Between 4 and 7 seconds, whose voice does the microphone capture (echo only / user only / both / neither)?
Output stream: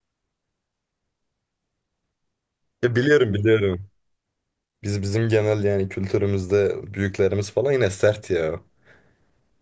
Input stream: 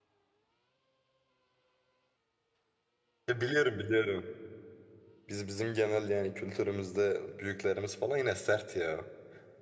echo only